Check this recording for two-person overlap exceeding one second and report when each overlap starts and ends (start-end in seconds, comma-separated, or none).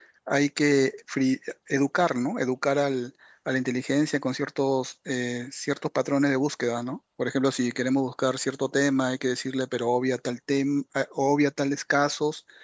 none